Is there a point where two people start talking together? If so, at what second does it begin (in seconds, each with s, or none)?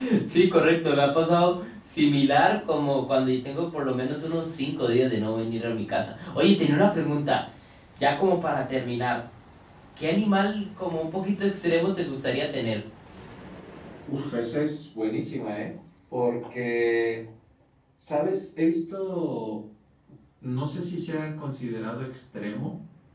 none